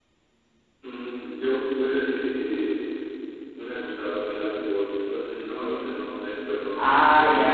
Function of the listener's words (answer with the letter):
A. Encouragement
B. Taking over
B